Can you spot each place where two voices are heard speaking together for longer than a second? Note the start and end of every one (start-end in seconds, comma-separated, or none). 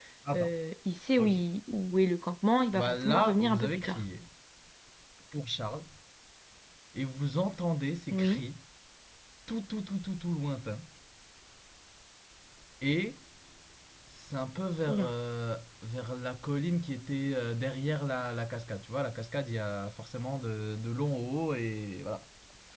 2.7-4.0